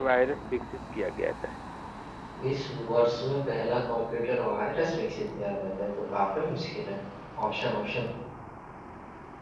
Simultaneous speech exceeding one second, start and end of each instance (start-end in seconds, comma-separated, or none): none